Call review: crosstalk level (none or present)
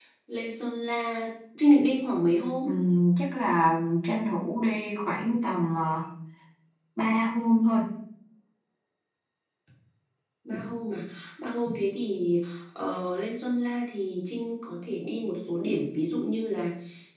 none